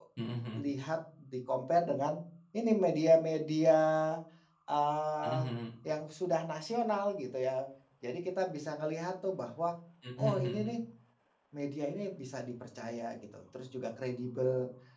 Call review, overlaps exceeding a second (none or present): none